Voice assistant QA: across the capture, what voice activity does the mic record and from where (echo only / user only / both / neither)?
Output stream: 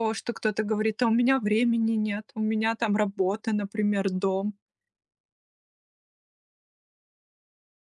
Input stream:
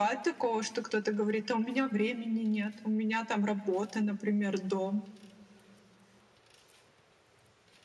echo only